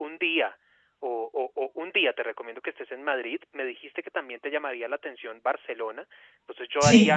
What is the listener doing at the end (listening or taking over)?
listening